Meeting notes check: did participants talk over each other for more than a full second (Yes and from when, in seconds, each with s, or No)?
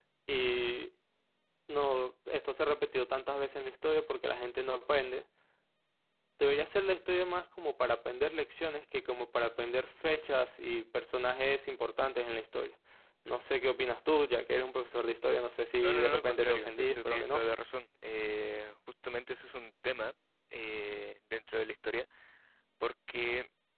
Yes, from 15.8 s